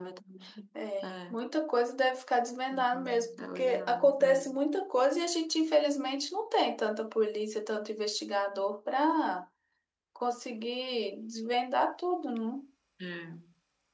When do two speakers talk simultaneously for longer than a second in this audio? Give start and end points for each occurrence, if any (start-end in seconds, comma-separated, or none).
2.7-4.6